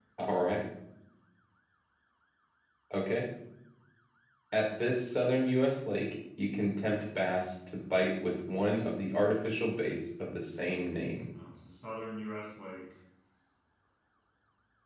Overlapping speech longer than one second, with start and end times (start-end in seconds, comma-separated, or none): none